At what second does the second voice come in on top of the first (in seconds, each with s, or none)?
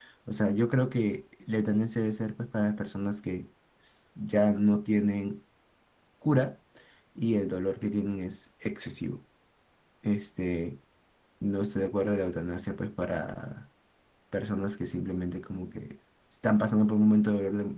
none